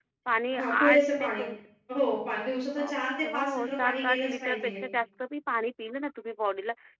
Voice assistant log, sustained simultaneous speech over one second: present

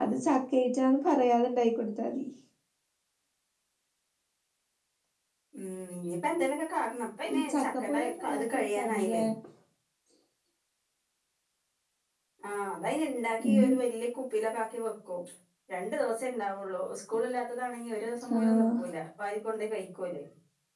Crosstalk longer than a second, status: present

